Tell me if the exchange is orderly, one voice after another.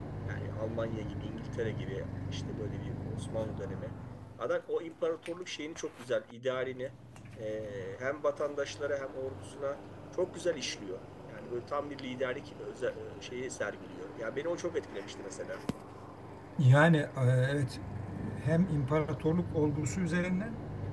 Yes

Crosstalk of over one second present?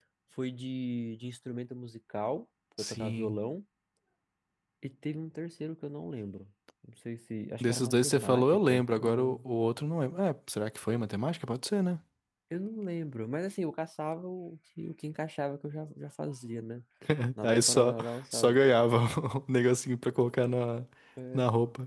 Yes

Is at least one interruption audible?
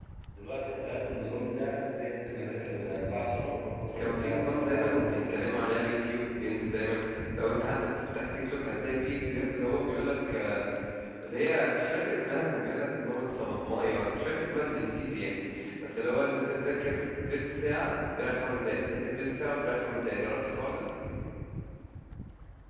Yes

